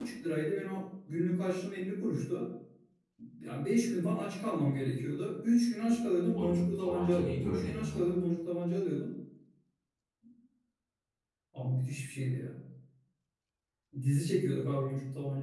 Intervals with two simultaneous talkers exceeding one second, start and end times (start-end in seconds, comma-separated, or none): 6.3-8.1